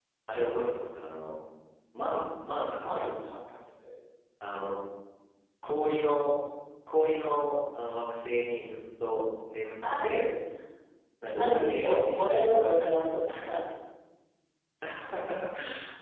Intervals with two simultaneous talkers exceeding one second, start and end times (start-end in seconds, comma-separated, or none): 11.4-12.7